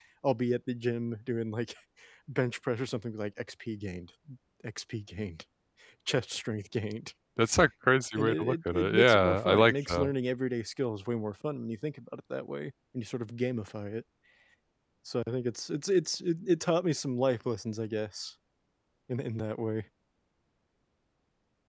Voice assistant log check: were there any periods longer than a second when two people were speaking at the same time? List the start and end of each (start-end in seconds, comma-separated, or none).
8.2-10.1